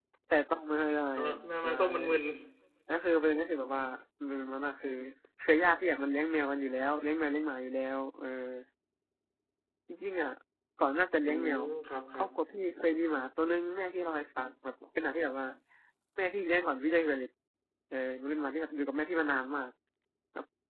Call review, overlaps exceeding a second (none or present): none